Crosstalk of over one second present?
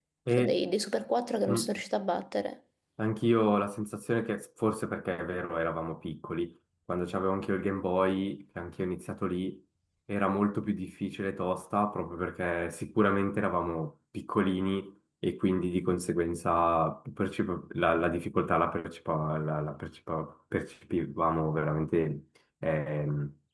No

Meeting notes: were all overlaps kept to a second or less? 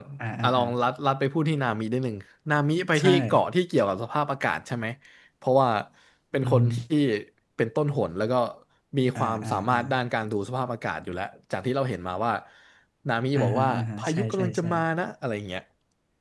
No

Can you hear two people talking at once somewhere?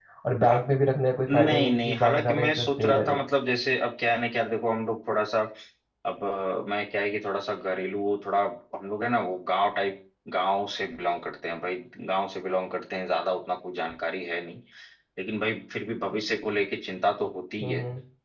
Yes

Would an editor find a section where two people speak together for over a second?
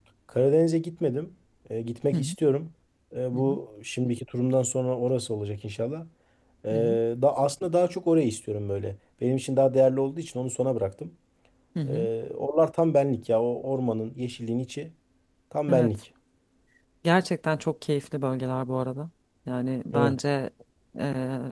No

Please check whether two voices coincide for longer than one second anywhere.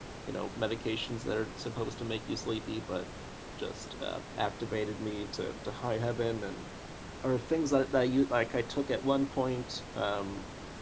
No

